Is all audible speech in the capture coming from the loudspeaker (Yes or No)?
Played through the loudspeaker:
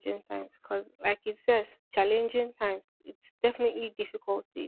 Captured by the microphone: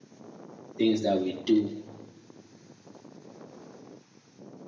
No